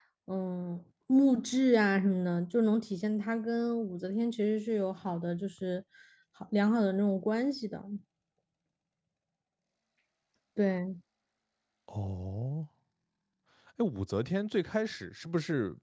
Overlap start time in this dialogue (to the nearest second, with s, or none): none